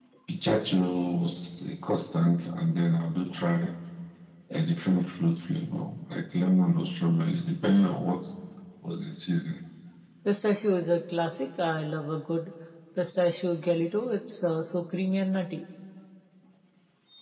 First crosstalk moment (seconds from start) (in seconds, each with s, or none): none